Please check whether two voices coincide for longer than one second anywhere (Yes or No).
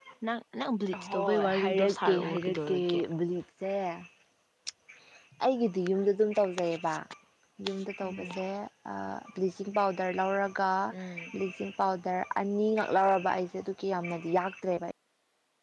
Yes